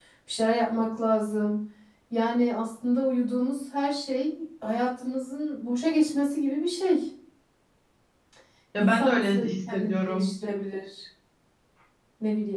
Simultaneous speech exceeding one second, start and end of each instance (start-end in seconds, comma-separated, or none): 8.8-10.3